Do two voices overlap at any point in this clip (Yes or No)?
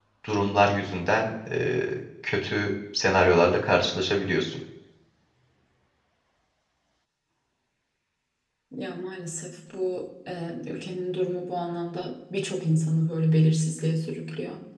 No